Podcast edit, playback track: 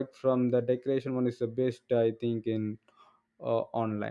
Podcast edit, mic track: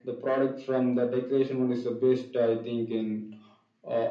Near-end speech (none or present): none